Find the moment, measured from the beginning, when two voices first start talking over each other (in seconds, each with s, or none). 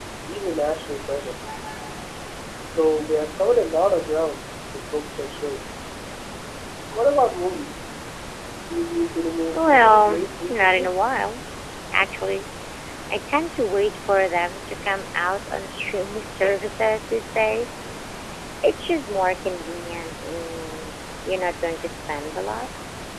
9.5 s